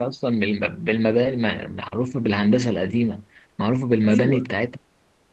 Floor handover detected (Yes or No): No